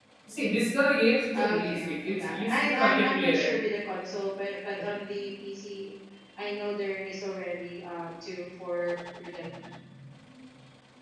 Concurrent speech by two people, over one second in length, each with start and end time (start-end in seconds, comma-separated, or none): 1.4-3.5